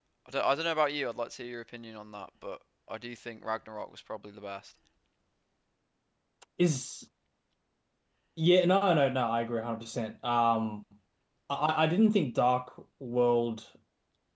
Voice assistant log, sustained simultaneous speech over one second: none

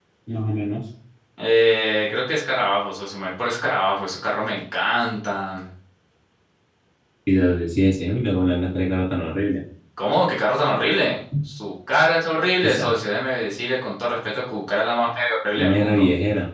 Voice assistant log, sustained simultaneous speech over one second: none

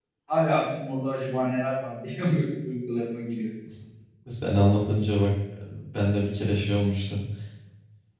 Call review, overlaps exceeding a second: none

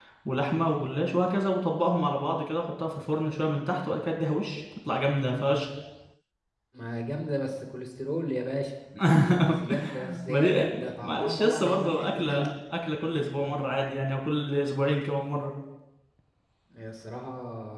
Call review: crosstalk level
present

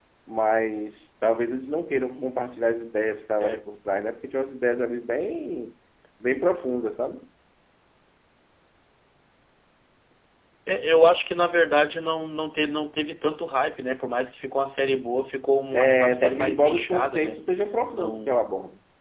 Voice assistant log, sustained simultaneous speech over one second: present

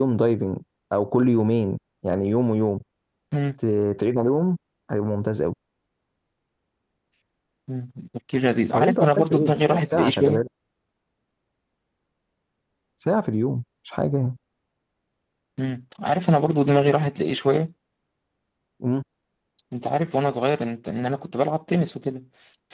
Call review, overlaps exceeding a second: present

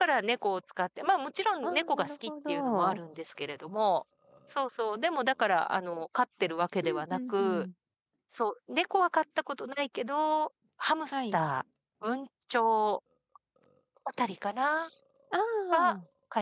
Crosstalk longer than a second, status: present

